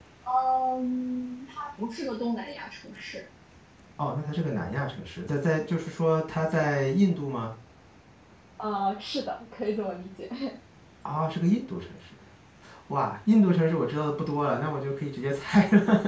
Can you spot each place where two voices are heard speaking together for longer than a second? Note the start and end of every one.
none

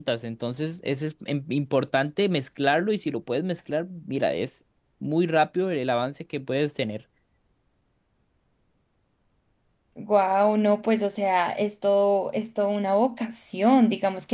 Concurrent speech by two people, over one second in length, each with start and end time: none

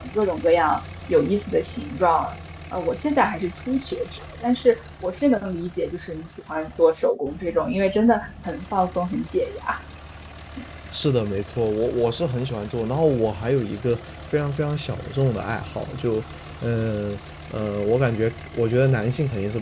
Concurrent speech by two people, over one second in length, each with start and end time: none

